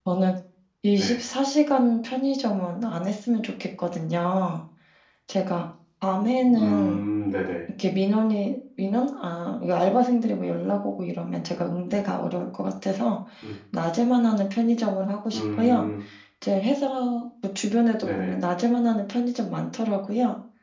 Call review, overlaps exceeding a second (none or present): none